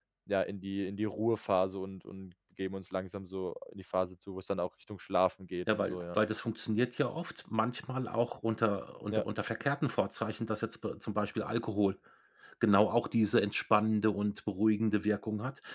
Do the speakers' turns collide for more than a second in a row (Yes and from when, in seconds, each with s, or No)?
No